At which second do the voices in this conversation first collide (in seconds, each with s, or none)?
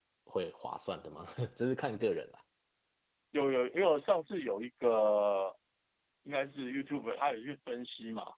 none